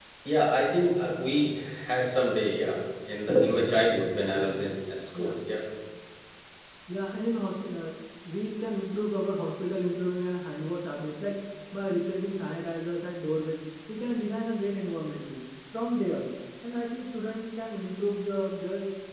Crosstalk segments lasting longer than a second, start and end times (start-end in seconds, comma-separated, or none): none